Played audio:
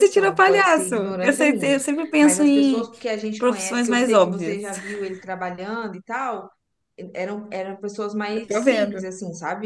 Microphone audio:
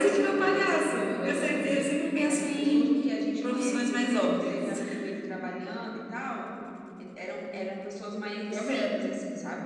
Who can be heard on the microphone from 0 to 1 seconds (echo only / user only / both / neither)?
echo only